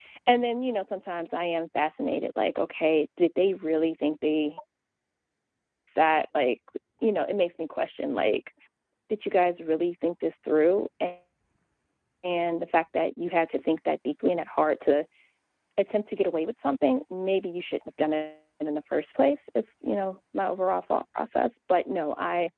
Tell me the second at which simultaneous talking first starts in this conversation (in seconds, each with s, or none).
none